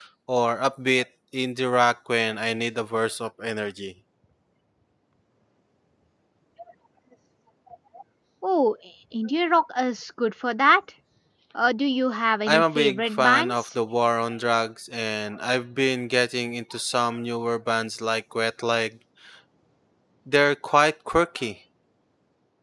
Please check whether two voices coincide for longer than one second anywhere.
Yes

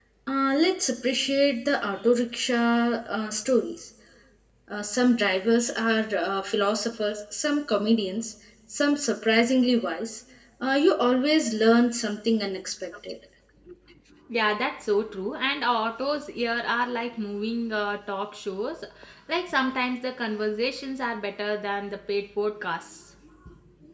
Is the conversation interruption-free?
Yes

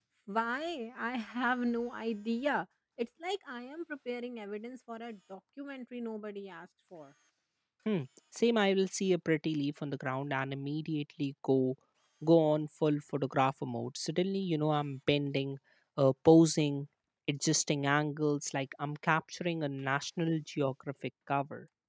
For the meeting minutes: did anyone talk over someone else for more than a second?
No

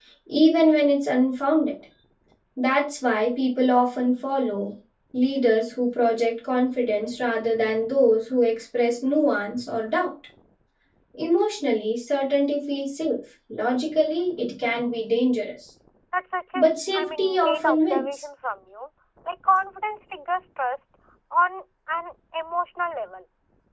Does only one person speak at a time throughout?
No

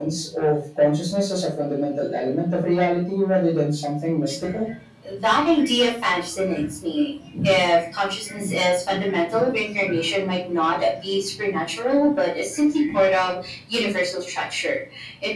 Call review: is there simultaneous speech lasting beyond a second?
No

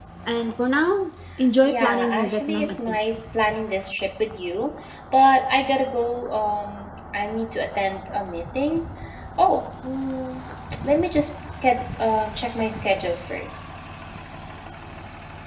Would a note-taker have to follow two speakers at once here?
Yes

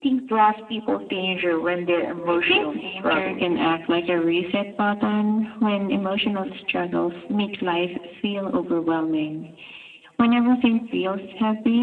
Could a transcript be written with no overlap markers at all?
No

